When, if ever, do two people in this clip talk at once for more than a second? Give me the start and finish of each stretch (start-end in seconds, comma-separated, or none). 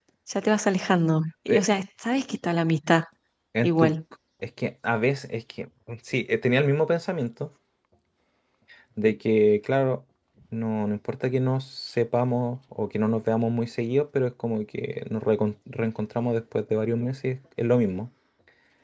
none